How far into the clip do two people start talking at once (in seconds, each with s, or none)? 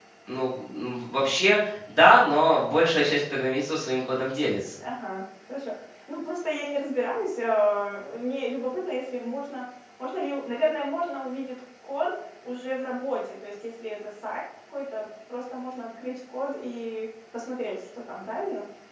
none